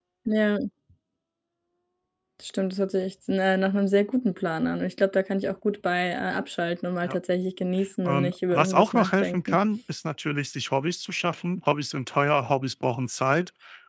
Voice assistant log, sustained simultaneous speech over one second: present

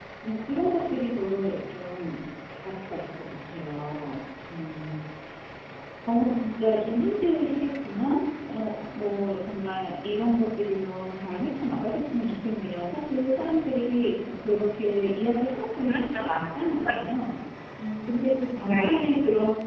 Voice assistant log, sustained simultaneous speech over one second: present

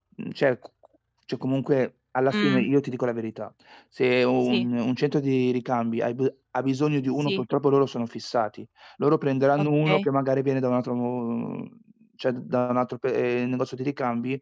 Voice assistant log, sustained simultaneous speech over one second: none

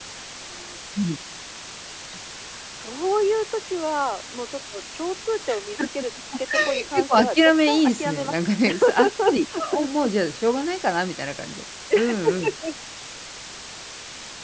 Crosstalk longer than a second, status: present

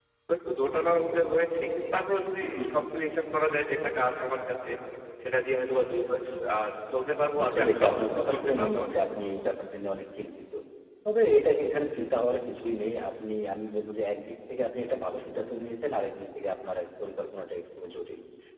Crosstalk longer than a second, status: present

